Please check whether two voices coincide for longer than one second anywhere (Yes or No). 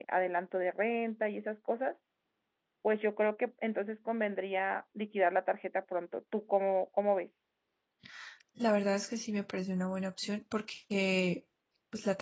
No